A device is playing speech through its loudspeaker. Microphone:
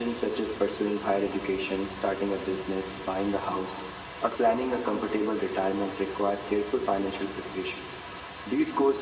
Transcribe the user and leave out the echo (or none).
none